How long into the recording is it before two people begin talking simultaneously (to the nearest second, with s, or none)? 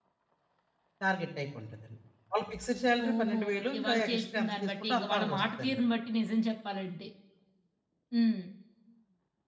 3 s